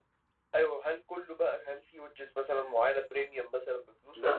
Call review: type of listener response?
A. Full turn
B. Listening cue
A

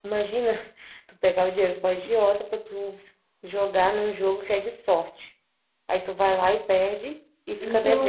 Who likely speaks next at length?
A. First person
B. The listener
B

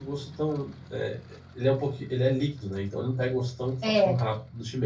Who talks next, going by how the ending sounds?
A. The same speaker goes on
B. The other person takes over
A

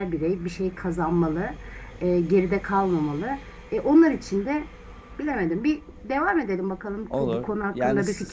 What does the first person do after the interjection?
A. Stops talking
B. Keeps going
A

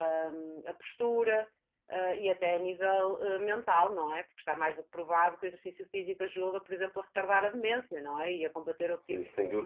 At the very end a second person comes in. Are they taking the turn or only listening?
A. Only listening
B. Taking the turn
B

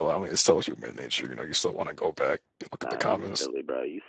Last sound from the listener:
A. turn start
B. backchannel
A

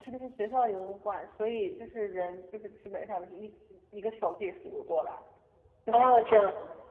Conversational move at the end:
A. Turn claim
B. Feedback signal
A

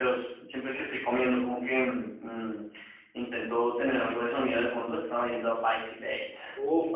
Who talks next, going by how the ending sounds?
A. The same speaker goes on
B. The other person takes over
B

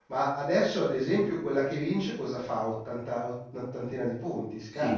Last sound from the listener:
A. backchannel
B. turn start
B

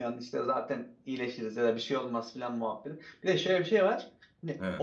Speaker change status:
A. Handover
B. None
B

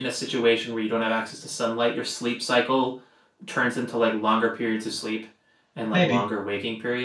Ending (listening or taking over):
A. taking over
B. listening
B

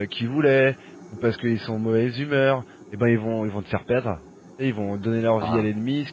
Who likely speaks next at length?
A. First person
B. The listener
A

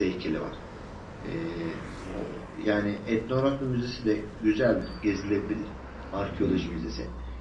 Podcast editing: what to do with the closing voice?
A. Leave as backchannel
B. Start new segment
A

